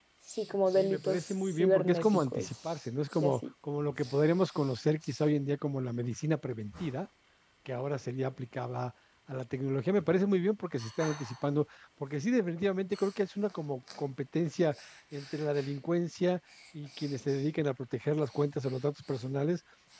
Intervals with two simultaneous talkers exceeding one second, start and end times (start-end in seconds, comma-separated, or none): 0.7-2.5